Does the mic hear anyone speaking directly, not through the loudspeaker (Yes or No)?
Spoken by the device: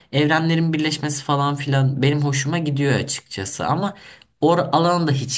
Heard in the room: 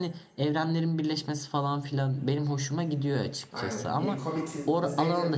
Yes